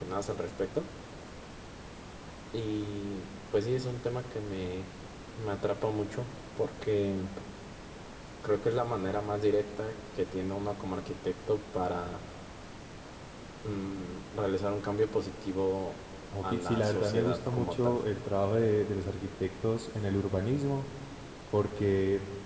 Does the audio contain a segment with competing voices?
Yes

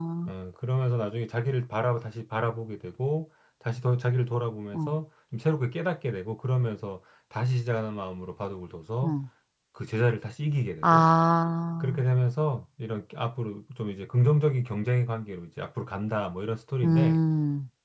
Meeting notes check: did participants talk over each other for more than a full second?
No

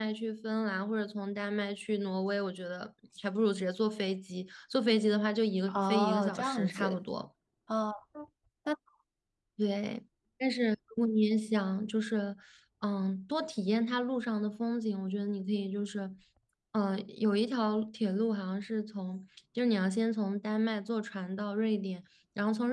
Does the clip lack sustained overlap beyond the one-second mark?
No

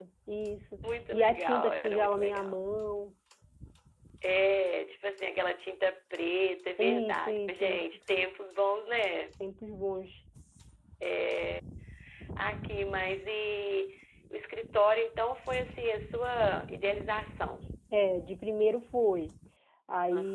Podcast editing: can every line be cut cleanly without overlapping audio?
No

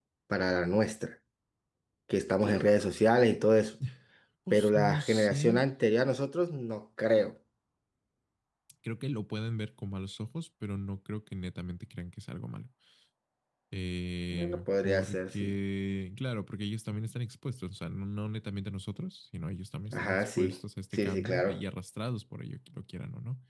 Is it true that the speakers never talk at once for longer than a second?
No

